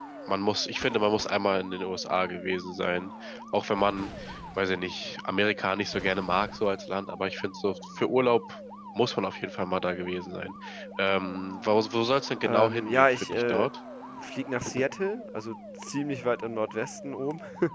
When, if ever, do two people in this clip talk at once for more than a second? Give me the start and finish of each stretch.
12.4-13.7

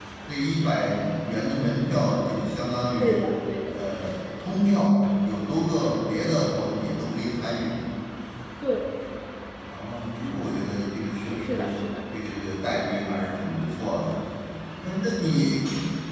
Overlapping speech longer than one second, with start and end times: none

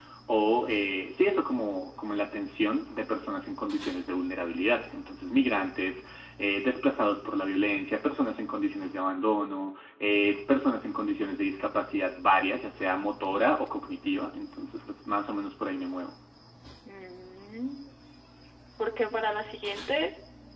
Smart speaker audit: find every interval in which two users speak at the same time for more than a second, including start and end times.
none

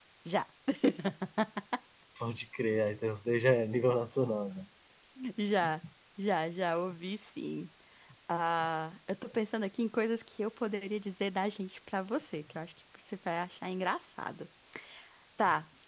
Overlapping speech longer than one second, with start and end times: none

